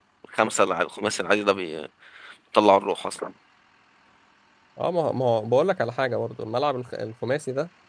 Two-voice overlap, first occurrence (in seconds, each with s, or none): none